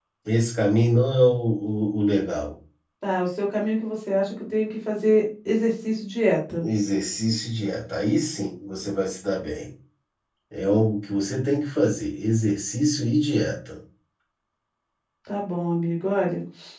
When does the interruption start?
none

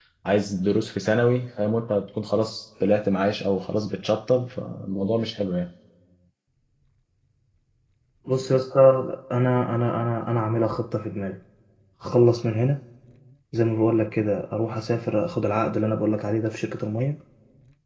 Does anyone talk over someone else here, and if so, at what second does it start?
none

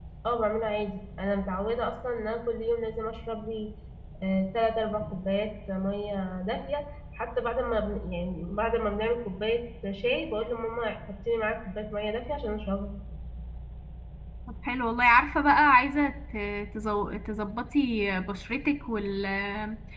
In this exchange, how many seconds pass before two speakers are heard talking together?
none

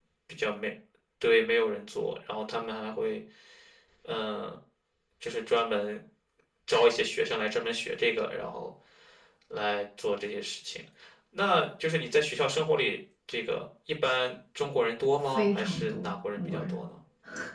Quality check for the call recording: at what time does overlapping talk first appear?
15 s

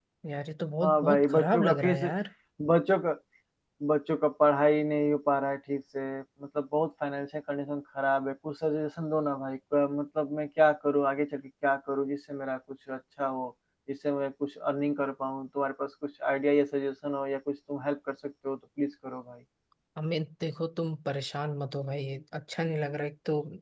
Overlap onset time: 1 s

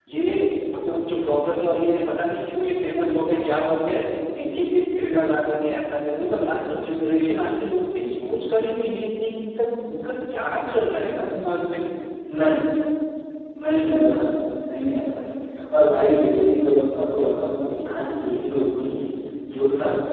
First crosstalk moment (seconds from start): none

